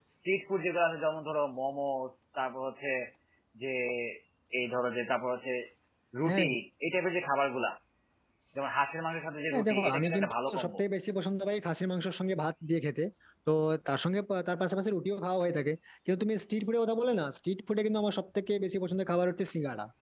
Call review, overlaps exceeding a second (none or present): present